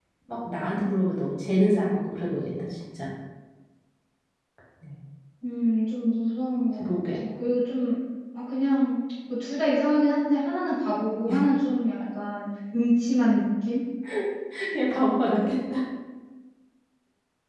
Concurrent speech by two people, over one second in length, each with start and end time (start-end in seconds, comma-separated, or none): none